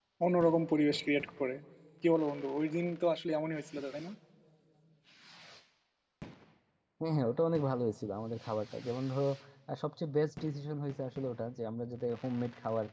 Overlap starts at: none

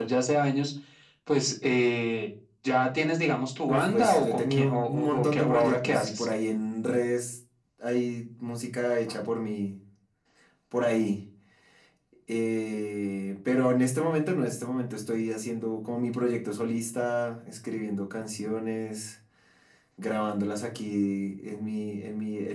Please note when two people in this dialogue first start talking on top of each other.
3.7 s

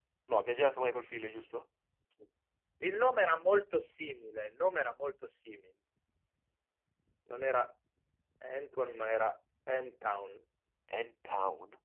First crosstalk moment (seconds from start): none

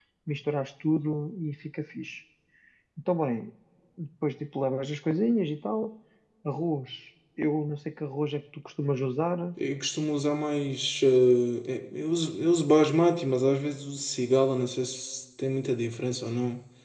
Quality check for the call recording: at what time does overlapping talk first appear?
none

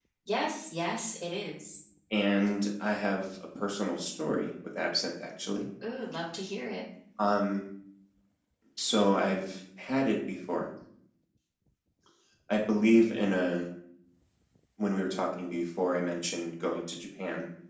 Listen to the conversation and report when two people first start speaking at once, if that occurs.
none

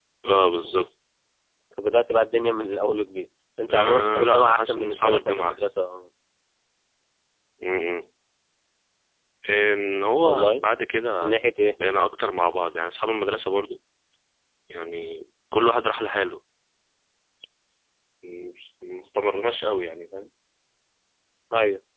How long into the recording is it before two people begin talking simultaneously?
3.7 s

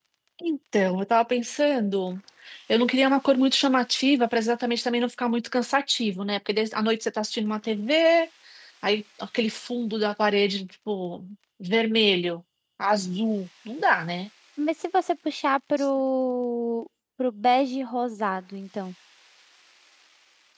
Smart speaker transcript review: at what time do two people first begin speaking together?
none

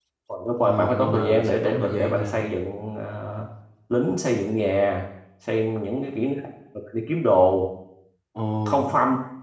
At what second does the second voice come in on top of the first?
0.6 s

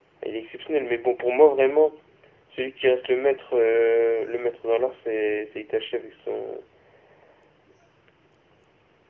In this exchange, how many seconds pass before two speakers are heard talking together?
none

